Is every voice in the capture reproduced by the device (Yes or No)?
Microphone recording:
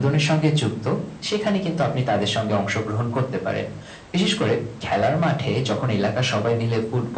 Yes